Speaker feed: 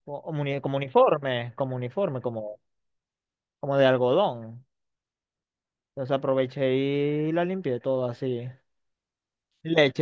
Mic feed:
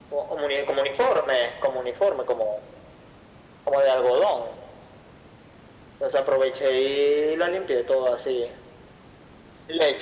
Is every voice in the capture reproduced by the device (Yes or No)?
Yes